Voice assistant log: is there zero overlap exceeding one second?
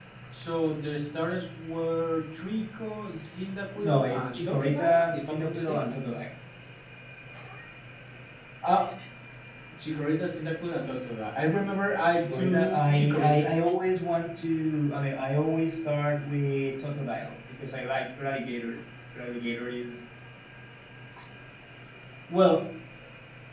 No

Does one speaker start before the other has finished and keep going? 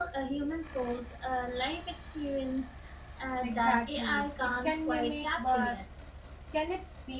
Yes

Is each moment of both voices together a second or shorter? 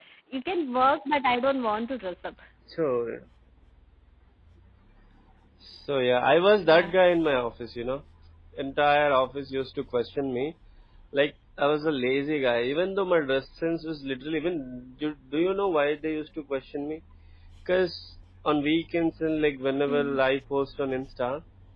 Yes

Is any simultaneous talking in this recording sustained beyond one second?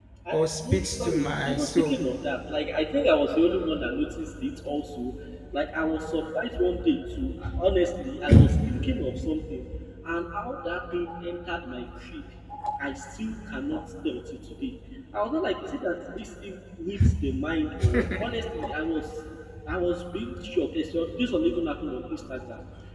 Yes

